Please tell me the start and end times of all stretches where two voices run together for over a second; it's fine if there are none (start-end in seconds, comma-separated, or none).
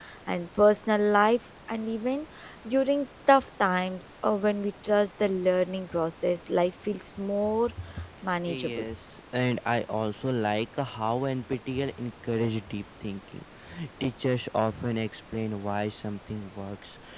none